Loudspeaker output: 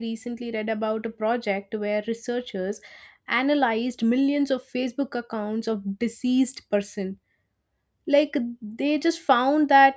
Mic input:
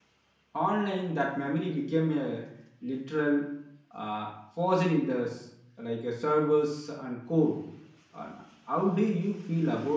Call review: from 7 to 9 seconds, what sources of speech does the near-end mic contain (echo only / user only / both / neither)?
user only